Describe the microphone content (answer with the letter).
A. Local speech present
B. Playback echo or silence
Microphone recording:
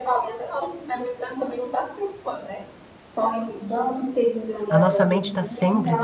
A